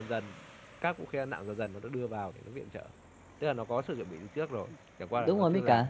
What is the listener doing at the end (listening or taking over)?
taking over